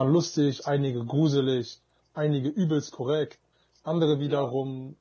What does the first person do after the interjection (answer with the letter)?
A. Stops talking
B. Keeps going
B